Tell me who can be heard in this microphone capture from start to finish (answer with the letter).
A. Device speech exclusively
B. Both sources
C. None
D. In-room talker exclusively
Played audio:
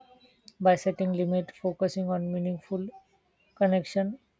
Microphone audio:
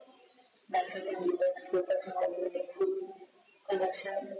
A